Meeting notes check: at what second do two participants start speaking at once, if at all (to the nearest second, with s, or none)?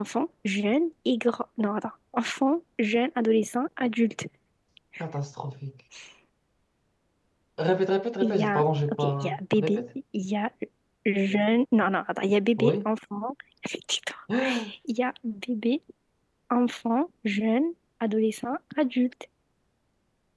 8 s